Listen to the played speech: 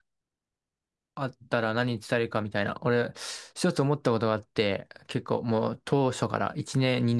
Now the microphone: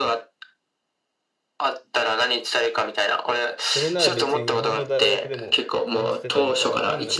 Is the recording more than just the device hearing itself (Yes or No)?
Yes